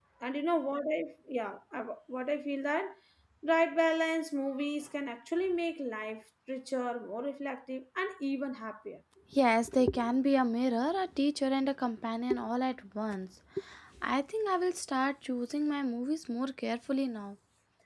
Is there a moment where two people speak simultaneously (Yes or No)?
No